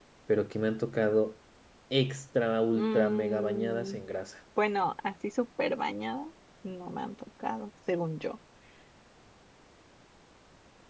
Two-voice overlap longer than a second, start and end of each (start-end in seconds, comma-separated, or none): 2.8-4.0